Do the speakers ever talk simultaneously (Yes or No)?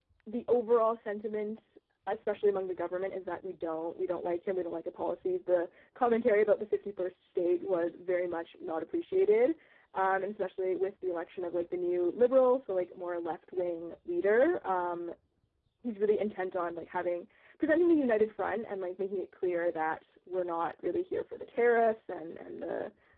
No